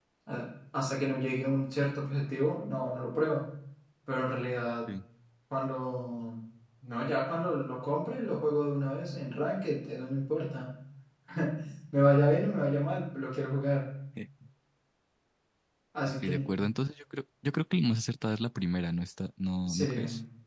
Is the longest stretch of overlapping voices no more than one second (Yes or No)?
Yes